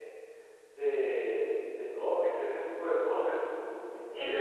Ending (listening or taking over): taking over